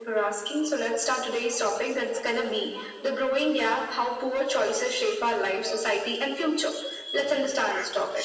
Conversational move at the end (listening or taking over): listening